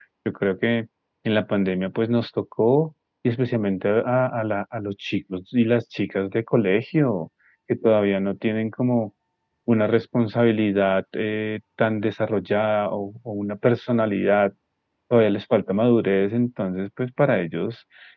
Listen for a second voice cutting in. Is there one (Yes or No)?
No